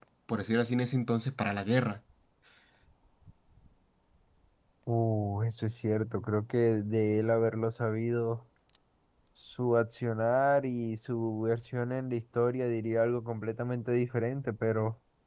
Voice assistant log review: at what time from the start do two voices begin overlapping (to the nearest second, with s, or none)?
none